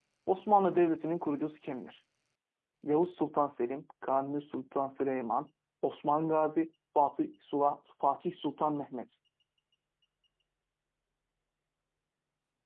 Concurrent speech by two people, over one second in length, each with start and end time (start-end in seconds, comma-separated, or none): none